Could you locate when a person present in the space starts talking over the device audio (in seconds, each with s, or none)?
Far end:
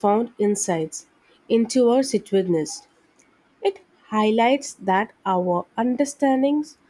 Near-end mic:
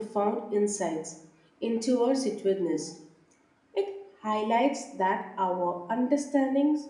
none